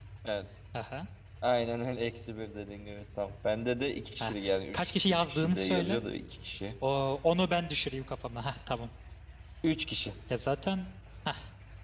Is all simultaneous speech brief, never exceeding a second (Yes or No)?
No